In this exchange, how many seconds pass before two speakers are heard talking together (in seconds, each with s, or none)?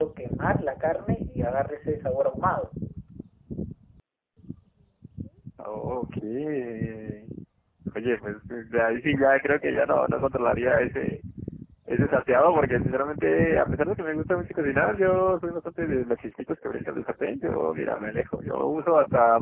none